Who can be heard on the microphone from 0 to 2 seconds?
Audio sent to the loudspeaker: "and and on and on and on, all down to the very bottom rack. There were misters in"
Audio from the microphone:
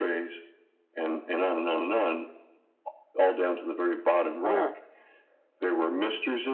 echo only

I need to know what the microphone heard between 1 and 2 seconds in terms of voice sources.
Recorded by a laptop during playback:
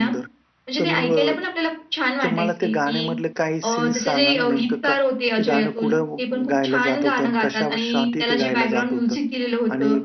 both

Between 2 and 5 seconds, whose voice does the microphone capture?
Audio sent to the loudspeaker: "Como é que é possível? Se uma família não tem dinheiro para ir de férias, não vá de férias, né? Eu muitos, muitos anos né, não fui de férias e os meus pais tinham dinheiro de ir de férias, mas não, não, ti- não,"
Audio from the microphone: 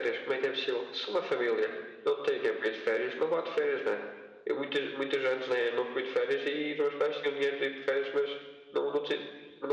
echo only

